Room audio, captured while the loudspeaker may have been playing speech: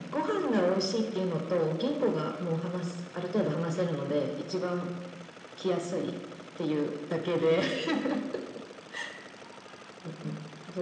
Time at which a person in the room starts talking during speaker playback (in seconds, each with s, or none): none